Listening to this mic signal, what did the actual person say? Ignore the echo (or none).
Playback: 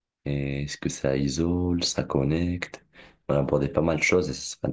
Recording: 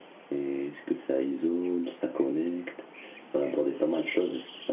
none